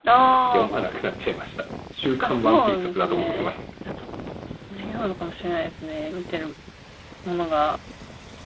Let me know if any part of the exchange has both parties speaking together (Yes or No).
Yes